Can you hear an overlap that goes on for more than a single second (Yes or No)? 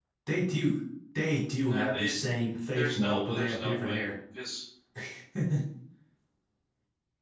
Yes